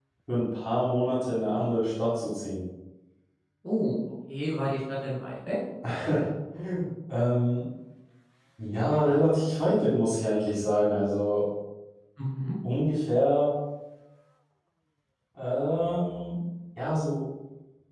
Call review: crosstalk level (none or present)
none